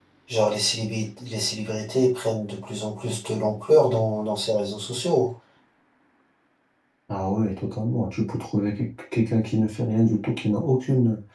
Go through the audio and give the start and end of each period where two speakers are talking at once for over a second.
none

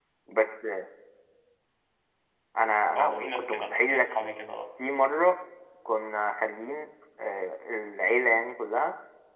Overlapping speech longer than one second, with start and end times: 3.0-4.2

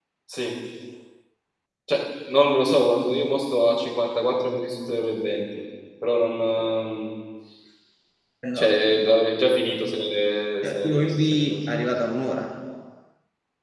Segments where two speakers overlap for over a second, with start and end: 10.6-11.9

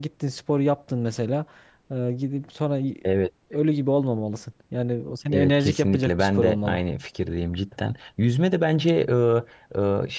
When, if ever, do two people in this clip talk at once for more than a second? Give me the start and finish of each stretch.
5.3-6.8

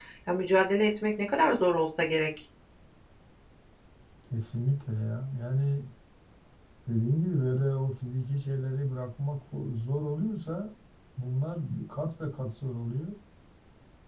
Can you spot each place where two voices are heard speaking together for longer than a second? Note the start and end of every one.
none

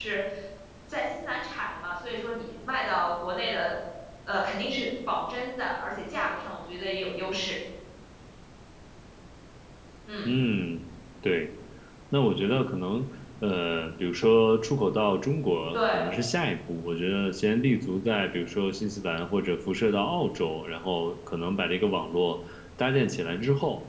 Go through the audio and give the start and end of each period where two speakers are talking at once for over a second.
none

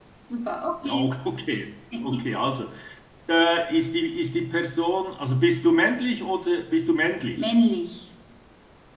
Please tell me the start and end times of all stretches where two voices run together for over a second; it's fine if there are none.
none

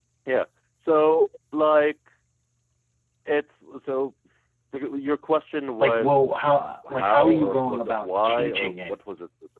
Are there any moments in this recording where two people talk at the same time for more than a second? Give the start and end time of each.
6.9-9.0

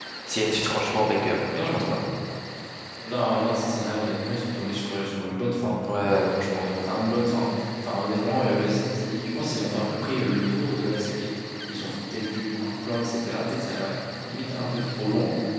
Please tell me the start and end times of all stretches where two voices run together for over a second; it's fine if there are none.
none

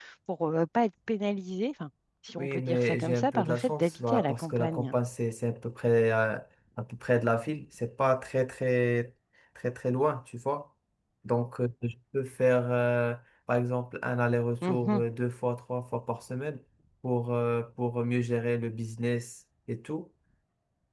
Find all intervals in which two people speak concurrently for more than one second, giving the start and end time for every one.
2.4-5.0

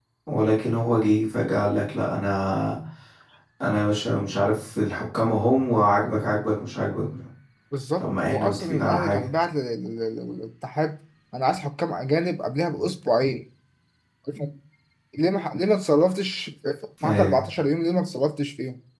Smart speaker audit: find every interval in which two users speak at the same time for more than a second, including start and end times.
8.0-9.3

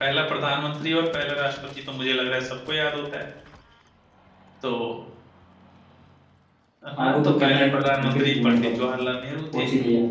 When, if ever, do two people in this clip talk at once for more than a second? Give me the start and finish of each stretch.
7.0-8.8

